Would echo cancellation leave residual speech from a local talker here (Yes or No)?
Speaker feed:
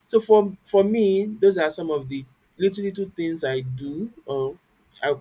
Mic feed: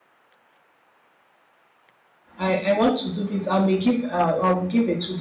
Yes